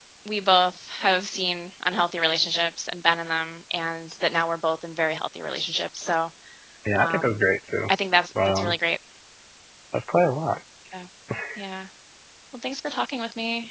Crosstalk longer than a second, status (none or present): none